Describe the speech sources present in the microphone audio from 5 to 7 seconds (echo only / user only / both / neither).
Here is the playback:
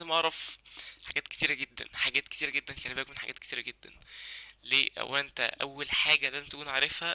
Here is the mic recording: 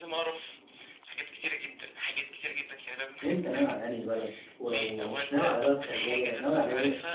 both